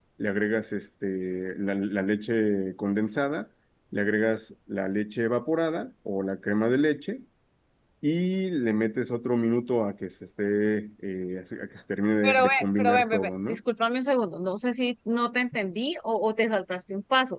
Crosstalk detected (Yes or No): Yes